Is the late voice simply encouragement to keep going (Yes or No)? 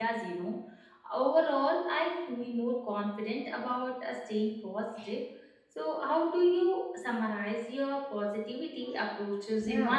No